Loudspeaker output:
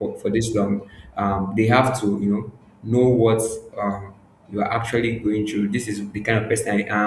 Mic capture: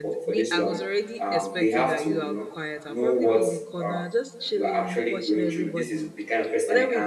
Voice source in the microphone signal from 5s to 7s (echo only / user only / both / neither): both